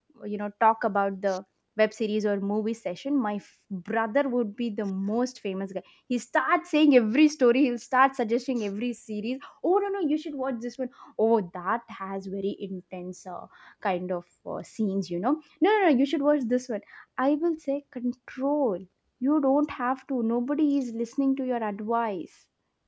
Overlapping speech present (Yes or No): No